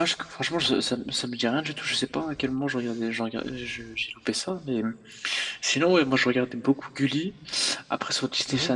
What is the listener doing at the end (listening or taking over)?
listening